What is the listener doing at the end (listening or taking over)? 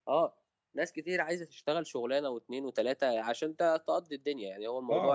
taking over